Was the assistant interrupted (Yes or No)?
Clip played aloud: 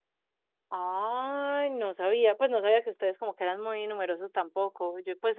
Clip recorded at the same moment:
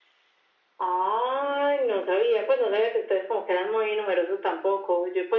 No